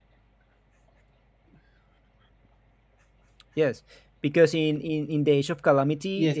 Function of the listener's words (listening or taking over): taking over